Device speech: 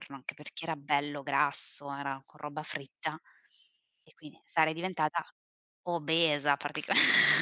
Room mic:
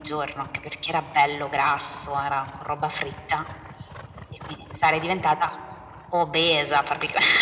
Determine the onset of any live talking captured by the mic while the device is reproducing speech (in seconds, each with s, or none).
none